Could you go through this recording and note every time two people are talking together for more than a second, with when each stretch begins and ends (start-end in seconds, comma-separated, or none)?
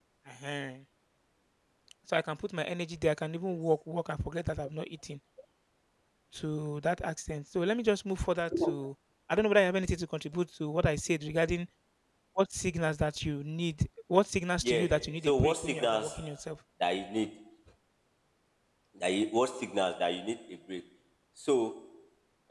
14.6-16.1